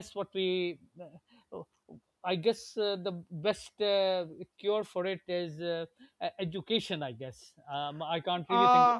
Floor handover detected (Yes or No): Yes